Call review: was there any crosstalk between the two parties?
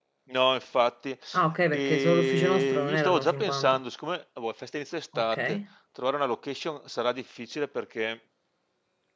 Yes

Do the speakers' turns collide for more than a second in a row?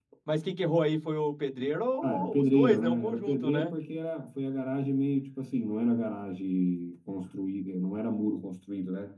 Yes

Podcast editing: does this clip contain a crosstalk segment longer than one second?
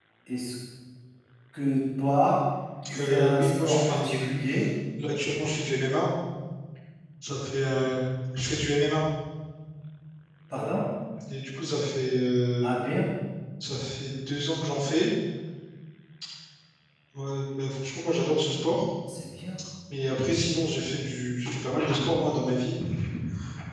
Yes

